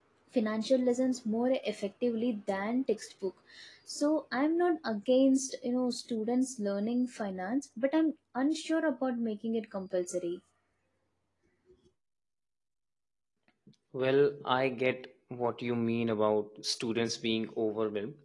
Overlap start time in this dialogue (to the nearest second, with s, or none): none